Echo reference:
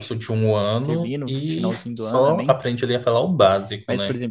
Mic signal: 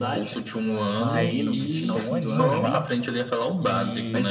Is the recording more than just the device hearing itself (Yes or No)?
Yes